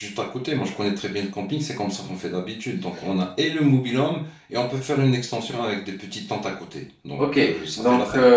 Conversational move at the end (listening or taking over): taking over